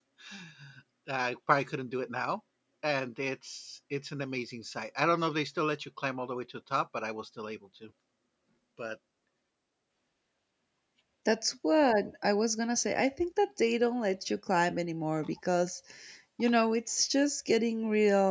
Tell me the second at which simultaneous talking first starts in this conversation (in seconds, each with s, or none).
none